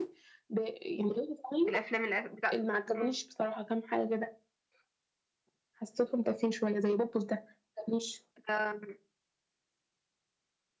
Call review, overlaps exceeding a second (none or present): none